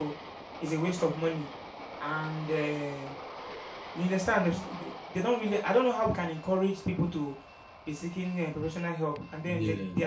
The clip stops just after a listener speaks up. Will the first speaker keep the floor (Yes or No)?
Yes